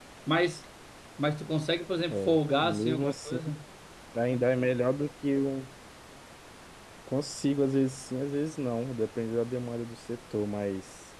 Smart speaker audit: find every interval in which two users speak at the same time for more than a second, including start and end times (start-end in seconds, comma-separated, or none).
2.1-3.4